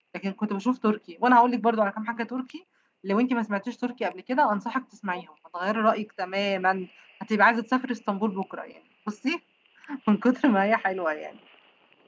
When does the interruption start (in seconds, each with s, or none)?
none